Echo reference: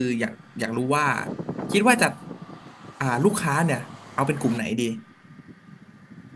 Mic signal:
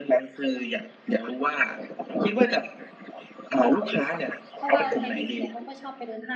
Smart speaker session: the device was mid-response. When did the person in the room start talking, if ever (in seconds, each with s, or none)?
4.5 s